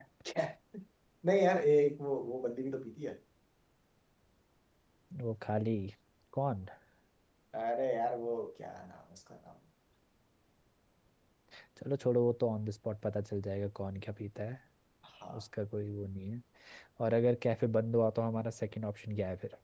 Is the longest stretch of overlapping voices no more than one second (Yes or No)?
Yes